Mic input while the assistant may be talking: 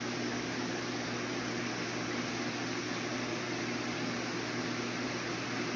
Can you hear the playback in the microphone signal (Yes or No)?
No